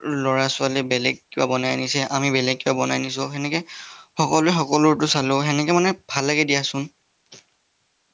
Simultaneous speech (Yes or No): No